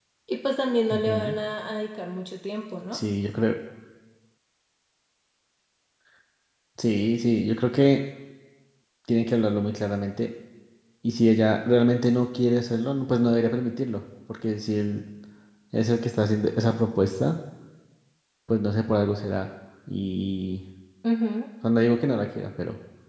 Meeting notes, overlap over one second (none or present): none